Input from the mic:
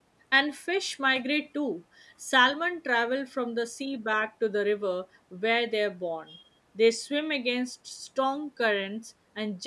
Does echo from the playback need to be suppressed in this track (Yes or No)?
No